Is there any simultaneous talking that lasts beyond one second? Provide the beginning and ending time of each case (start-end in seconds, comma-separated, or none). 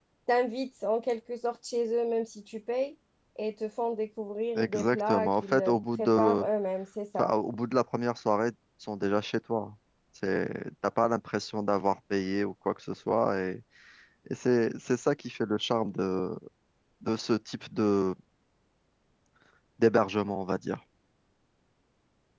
4.6-6.5